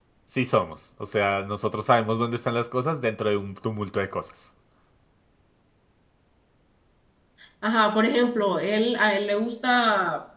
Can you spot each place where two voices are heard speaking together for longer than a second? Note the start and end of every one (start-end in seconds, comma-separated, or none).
none